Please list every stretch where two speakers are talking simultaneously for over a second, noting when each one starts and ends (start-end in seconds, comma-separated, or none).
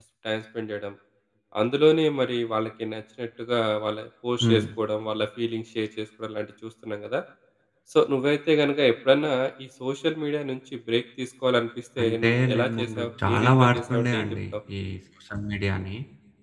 12.0-14.4